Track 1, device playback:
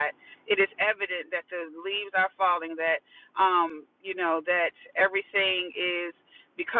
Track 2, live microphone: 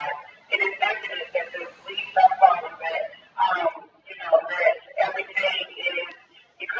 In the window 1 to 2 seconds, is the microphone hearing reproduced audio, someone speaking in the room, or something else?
echo only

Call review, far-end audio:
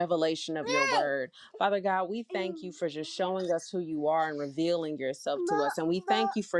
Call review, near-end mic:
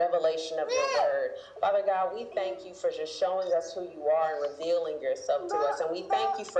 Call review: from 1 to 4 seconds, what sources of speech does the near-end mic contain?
echo only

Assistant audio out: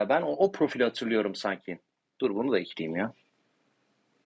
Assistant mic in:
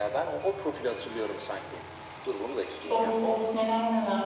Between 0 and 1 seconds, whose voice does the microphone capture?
echo only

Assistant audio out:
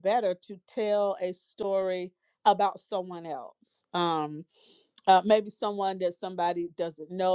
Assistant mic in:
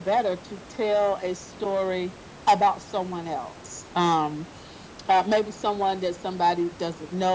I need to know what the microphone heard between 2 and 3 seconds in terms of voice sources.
echo only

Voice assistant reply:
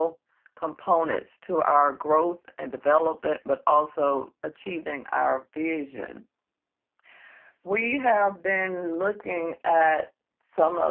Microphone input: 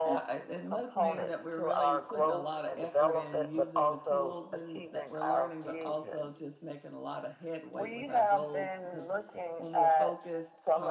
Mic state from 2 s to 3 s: both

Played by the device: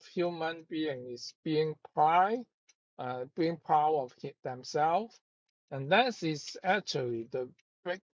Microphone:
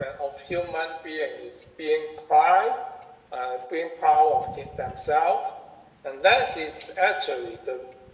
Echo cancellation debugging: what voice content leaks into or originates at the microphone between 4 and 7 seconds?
echo only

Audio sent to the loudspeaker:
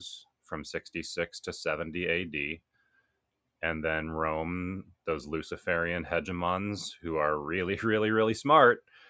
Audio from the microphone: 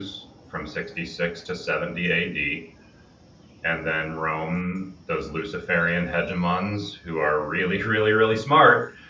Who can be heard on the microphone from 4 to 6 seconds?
echo only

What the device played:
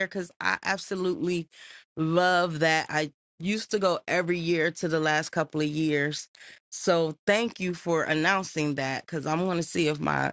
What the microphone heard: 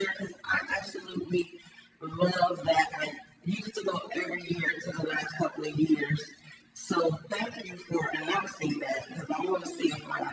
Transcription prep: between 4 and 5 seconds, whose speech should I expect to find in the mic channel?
echo only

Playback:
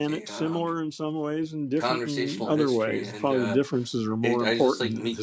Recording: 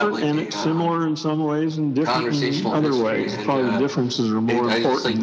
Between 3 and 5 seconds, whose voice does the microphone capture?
echo only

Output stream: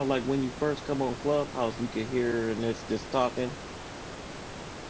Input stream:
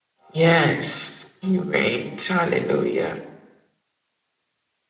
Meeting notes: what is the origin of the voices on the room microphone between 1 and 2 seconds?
user only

